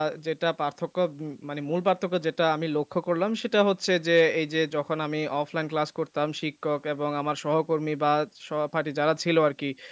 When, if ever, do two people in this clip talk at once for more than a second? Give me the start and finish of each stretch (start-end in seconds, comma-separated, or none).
none